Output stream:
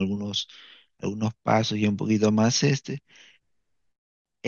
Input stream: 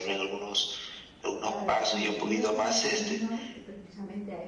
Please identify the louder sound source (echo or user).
echo